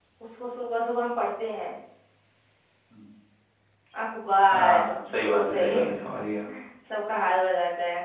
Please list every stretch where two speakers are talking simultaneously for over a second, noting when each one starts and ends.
4.5-5.8

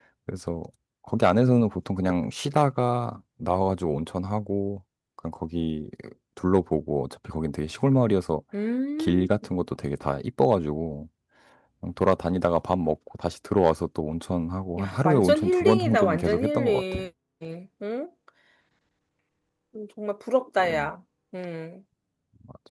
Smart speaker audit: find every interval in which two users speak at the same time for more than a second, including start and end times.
14.8-17.0

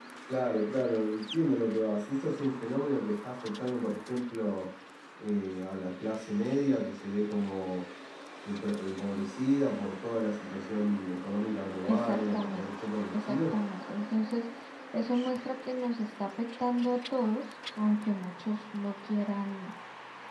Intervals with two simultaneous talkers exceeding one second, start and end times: 11.8-13.6

